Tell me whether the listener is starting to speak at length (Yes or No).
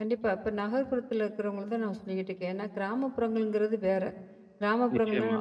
No